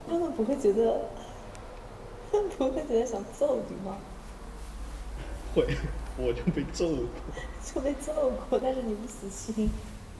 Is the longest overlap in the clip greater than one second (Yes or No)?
No